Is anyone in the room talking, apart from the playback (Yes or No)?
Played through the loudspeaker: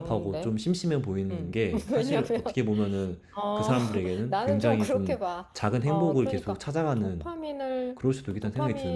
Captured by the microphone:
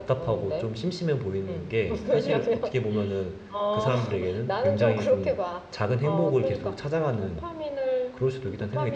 Yes